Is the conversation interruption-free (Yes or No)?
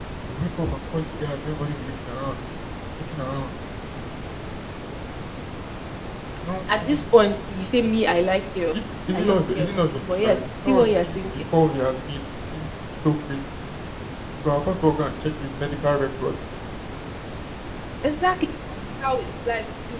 No